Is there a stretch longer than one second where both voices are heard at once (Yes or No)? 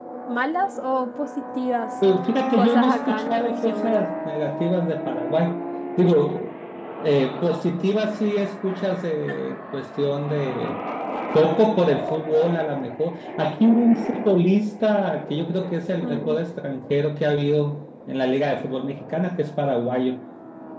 Yes